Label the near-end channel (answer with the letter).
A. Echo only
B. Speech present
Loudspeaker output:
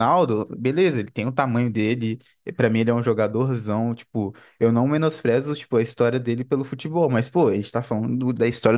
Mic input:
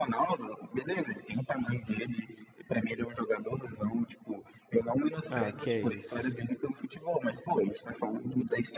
B